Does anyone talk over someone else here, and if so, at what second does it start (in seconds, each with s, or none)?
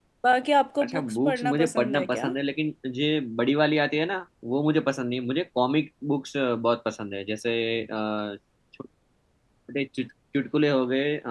0.8 s